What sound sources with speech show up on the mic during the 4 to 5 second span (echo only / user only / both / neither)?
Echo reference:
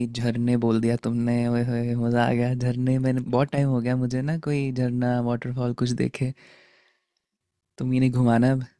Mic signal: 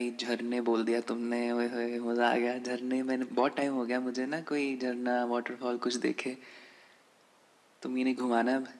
echo only